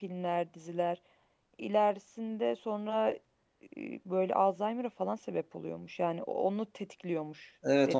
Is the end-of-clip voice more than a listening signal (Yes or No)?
Yes